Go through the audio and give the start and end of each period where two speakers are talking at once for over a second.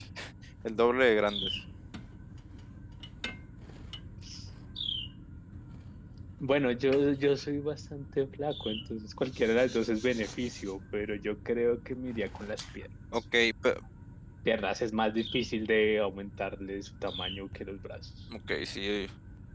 none

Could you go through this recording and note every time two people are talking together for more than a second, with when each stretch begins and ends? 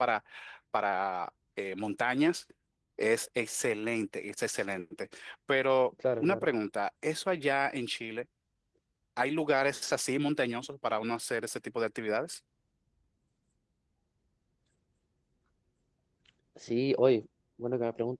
none

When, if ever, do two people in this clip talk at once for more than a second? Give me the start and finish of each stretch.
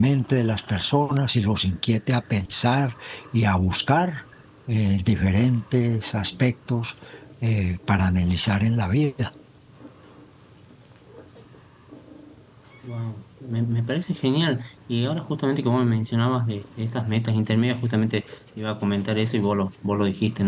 none

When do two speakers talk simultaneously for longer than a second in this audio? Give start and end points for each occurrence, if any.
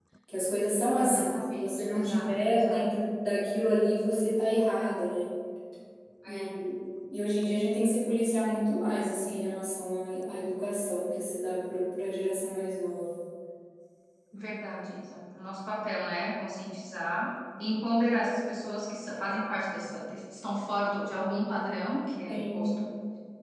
1.0-2.9

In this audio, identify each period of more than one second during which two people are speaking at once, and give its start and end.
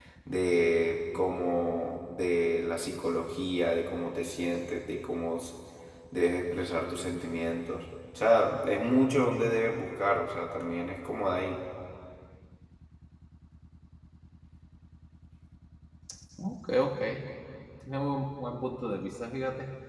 none

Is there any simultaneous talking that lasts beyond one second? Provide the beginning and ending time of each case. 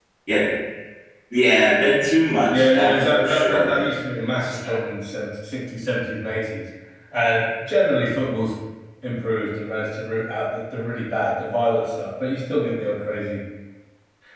2.5-3.7

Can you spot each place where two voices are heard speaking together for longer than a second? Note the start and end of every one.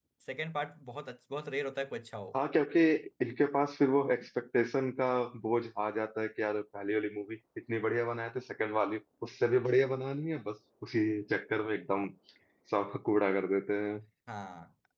none

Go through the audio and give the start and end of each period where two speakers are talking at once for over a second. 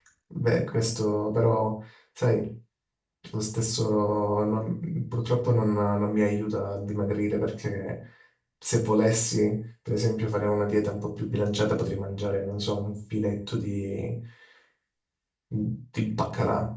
none

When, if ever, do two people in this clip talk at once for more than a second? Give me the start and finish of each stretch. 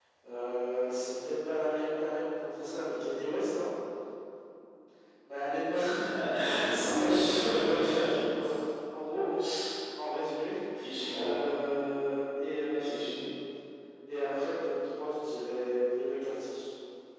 6.7-8.1

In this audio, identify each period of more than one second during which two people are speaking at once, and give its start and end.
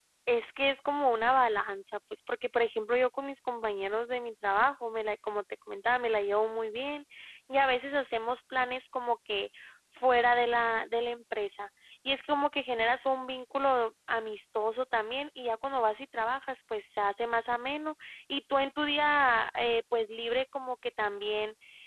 none

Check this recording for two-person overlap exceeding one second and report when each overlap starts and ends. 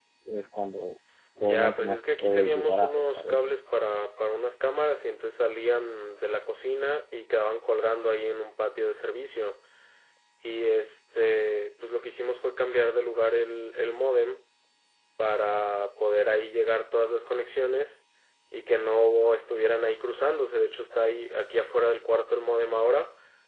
1.4-3.4

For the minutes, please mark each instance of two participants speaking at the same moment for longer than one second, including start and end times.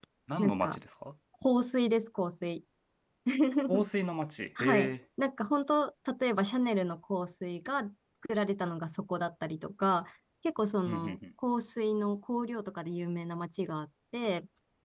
none

